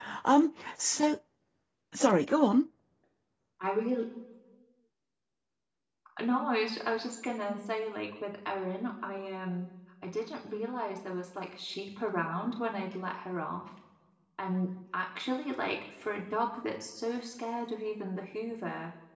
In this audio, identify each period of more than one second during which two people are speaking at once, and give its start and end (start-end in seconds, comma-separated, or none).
none